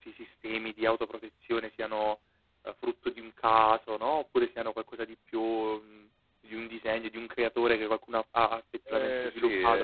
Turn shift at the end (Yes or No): Yes